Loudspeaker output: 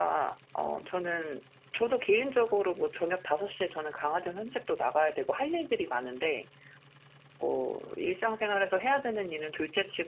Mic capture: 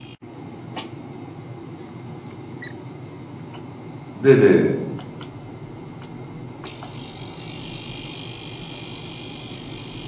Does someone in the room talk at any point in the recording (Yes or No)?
Yes